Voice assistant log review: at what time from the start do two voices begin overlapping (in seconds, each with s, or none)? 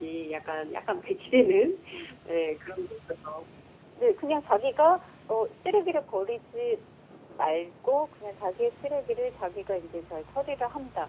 none